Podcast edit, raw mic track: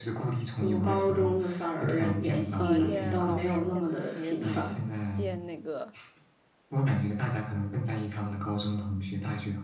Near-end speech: present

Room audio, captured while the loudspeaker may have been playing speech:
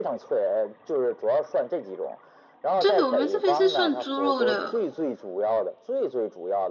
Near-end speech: present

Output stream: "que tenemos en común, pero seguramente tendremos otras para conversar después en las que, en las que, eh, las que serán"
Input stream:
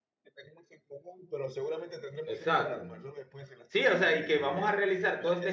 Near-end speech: present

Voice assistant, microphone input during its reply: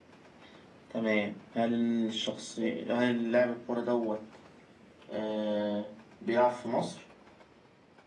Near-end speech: none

